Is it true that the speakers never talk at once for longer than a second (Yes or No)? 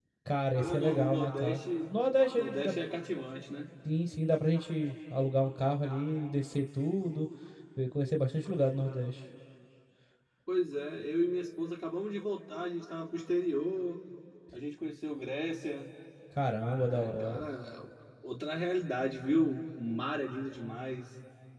No